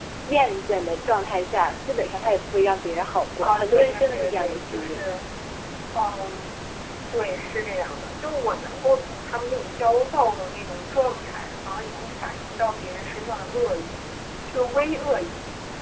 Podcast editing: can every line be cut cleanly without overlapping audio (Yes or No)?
No